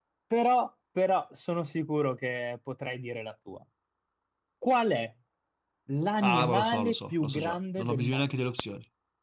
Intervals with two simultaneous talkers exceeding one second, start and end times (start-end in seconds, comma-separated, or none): 6.2-8.2